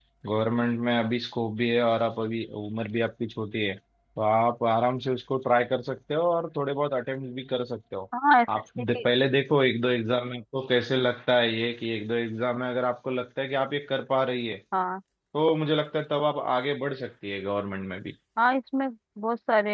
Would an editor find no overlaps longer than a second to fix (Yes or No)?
Yes